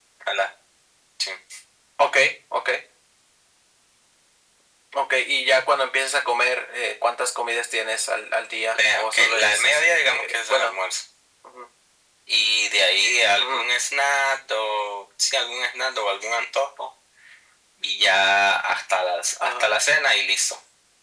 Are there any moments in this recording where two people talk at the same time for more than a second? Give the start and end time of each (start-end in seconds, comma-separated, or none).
8.8-10.8